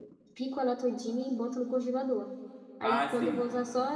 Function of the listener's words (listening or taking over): listening